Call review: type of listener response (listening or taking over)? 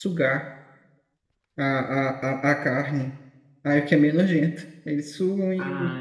taking over